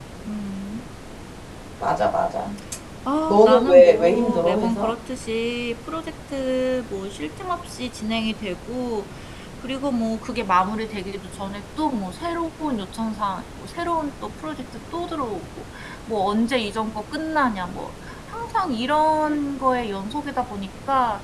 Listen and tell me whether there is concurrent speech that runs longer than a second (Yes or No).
Yes